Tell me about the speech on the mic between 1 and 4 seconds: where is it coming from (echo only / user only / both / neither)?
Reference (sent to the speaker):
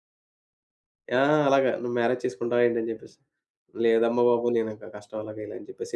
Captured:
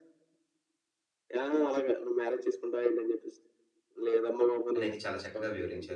echo only